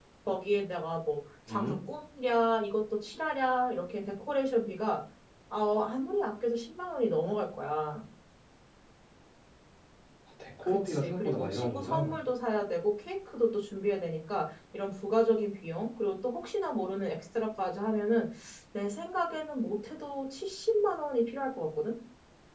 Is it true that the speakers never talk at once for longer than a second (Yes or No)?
No